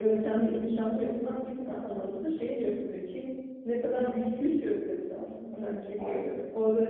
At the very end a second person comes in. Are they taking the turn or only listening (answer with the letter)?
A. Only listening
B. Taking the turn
A